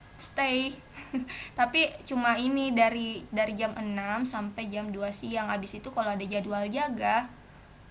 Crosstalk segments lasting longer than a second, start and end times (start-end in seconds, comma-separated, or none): none